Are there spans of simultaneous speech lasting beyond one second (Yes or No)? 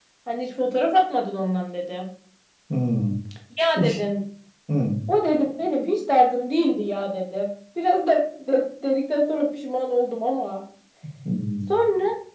No